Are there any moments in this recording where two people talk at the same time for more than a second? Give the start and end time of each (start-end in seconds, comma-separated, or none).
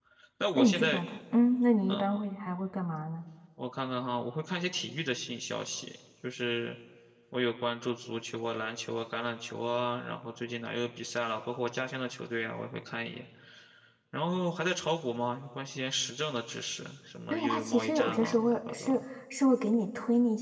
17.3-19.0